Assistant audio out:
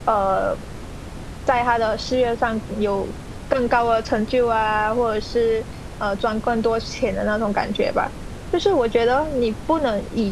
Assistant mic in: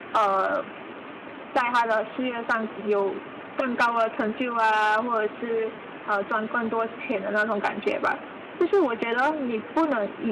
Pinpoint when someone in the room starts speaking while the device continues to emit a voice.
none

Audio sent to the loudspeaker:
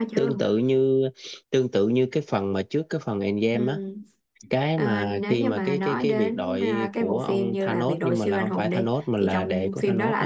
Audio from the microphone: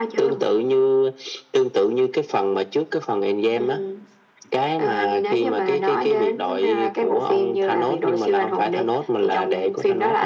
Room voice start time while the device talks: none

